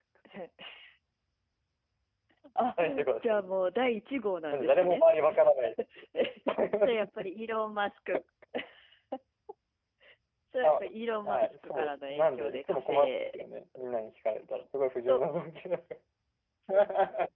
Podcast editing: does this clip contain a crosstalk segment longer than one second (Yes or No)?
Yes